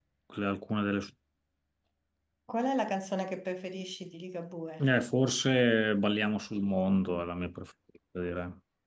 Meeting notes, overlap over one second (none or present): none